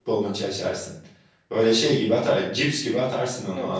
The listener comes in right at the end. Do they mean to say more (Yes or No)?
Yes